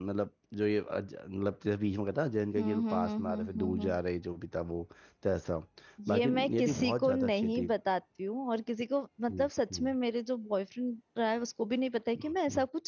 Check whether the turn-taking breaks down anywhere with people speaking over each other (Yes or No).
Yes